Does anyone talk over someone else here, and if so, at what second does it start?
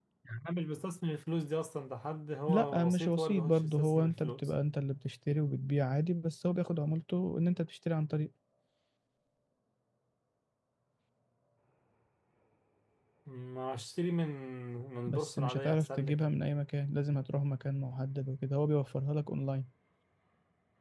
2.5 s

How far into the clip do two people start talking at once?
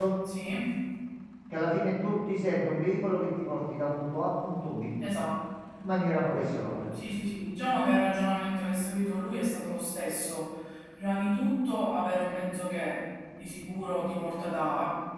none

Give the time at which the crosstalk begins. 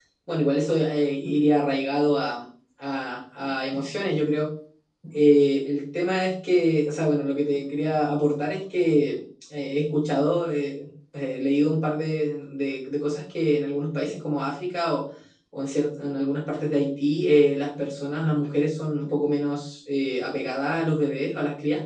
none

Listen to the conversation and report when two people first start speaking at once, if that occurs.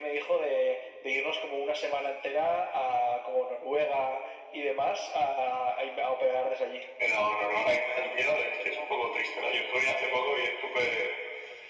none

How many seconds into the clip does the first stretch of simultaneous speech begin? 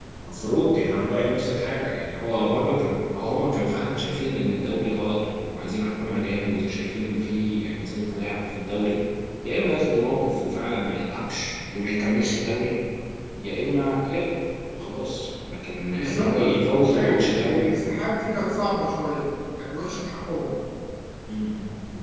15.9 s

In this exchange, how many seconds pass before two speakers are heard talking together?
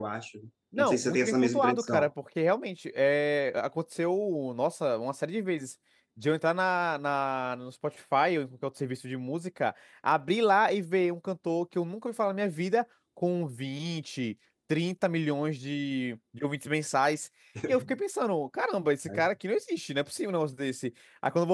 0.8 s

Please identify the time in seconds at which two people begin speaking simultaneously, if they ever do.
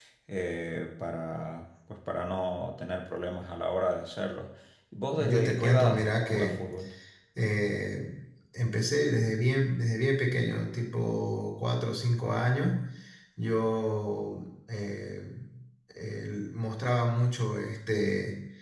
5.1 s

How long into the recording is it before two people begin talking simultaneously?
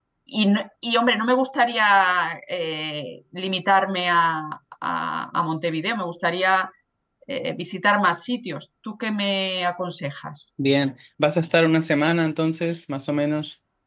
none

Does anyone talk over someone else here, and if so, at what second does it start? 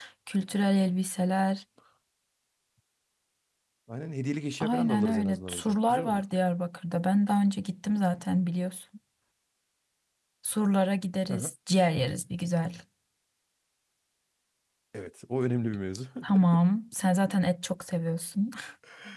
4.6 s

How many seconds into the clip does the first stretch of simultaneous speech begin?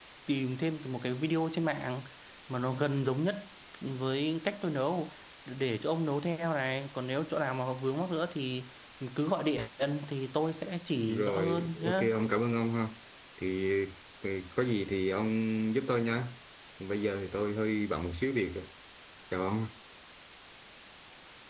10.9 s

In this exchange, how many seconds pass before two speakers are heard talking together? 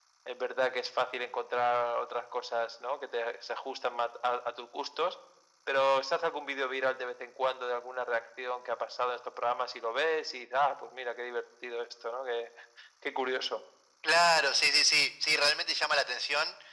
none

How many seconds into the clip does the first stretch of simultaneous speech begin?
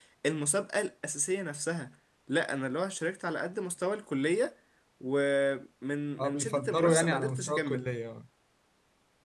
6.2 s

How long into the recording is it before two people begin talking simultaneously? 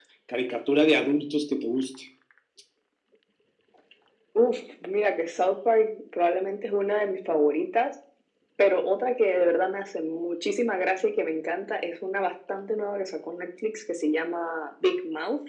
none

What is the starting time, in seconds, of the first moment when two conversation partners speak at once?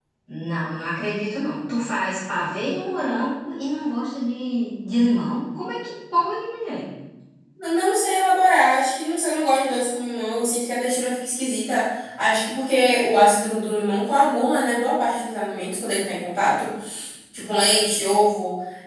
none

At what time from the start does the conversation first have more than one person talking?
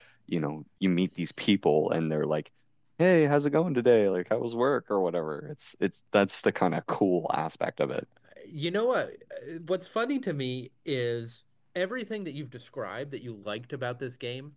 none

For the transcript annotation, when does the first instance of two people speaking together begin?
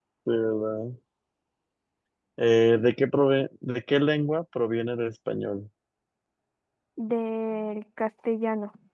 none

